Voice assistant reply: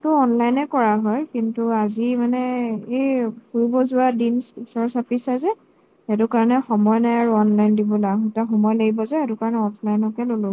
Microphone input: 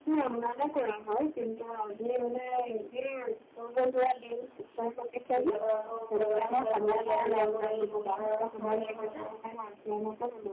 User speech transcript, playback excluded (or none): কেতিয়াবা আকৌ বজাৰ, চজাৰ কৰি আহি আকৌ এই কুঁহিয়াৰ ৰস খাবলৈ ভাল পাওঁ।